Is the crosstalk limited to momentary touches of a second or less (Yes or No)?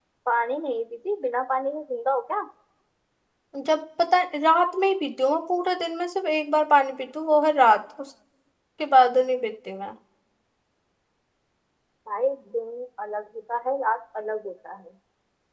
Yes